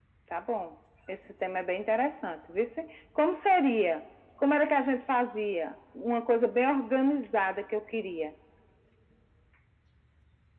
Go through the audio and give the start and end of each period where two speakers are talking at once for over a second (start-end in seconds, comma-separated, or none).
none